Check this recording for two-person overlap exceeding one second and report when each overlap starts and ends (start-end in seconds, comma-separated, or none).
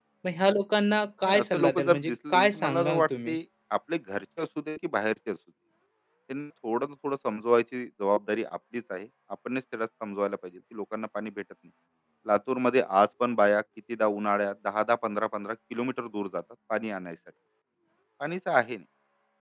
1.2-3.4